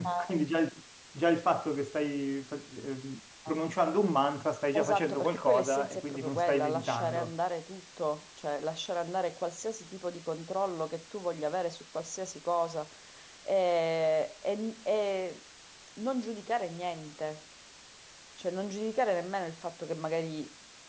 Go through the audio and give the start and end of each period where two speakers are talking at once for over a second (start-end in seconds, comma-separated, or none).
4.8-7.3